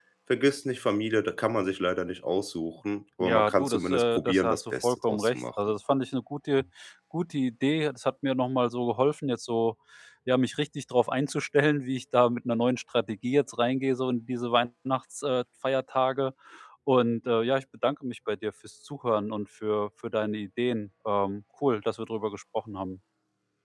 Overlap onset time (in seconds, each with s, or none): 3.2 s